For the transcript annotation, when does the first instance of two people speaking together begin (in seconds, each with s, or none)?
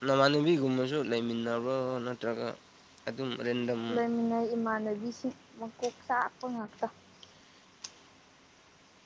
none